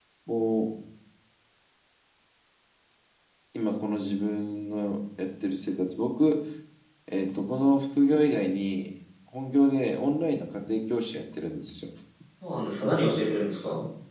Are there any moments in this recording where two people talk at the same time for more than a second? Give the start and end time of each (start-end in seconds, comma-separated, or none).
none